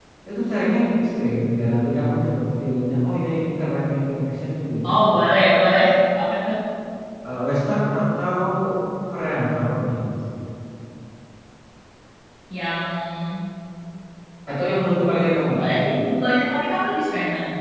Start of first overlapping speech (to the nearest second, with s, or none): none